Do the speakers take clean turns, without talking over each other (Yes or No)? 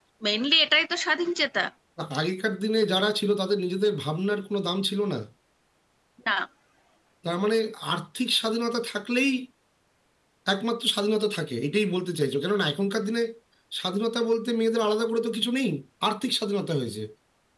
Yes